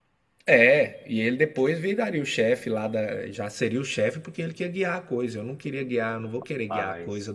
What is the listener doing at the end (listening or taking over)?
listening